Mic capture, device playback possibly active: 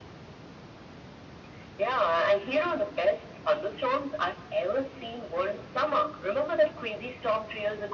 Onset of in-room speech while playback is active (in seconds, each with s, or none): none